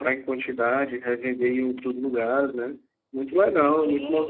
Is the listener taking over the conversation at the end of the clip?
Yes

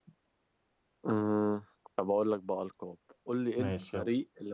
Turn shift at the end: No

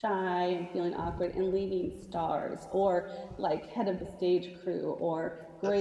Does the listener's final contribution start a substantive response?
No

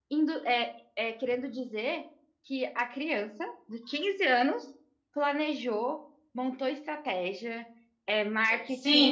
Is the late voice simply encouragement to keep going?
No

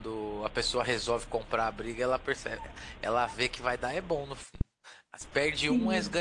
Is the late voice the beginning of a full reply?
No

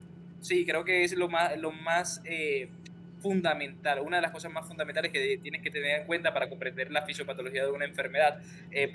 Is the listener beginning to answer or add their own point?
No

